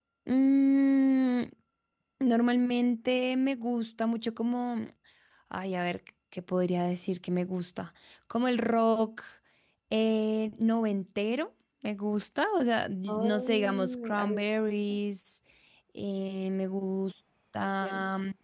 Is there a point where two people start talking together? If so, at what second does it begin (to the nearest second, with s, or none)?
13 s